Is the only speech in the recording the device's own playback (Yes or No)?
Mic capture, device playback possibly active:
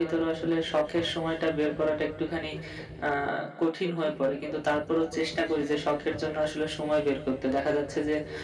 Yes